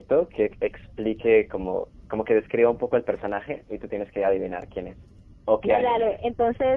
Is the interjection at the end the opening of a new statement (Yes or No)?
Yes